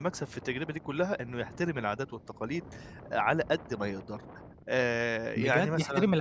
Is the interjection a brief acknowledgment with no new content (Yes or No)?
No